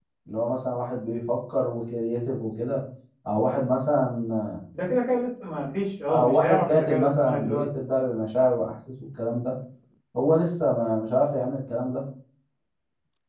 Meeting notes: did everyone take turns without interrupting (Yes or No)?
No